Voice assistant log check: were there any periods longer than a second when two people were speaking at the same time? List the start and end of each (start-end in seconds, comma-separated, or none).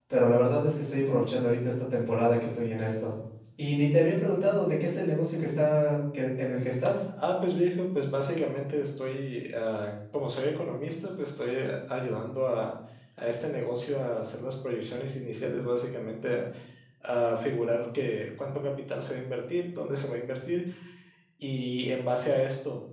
none